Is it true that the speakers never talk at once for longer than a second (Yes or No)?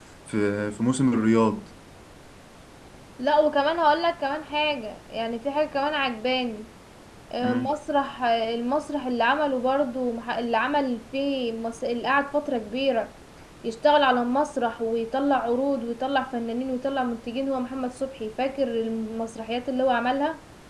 Yes